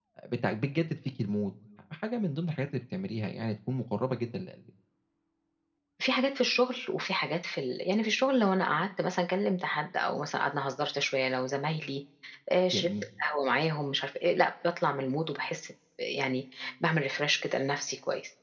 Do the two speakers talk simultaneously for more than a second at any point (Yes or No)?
No